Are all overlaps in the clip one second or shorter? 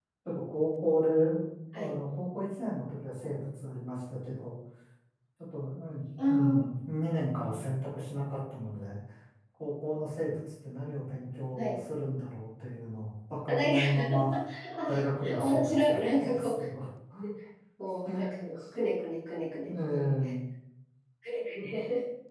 No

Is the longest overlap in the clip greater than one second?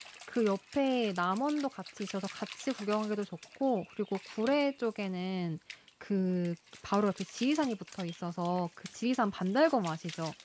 No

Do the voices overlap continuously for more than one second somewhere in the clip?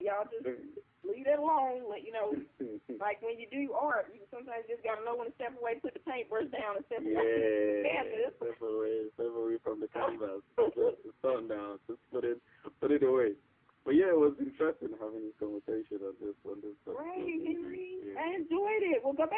Yes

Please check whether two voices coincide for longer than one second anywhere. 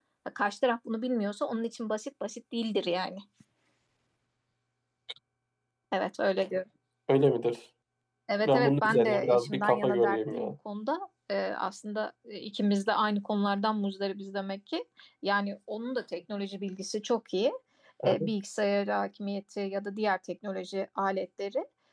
Yes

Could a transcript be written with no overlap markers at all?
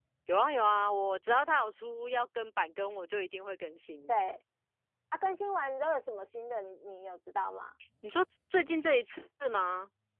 Yes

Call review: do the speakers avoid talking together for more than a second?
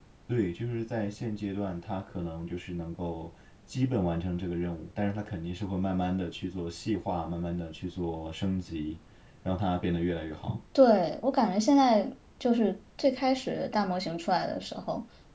Yes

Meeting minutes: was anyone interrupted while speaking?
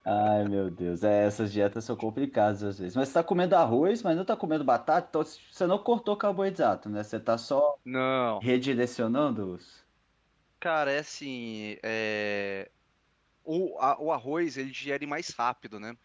No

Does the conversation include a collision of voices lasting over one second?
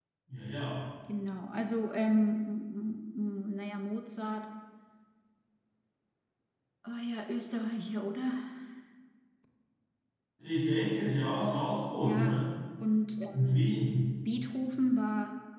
No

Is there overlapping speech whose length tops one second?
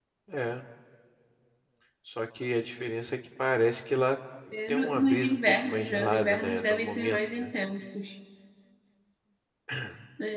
Yes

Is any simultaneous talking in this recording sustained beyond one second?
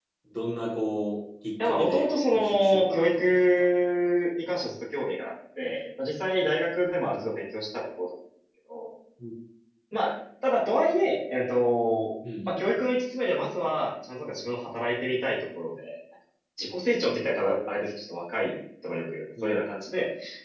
Yes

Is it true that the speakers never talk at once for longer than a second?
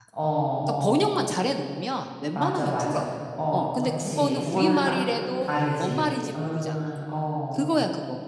No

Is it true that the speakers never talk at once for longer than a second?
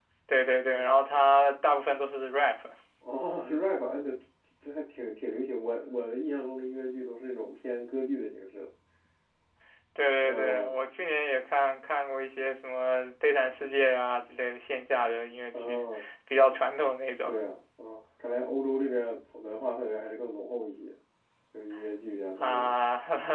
Yes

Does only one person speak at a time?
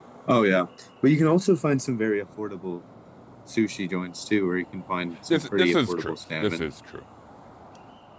No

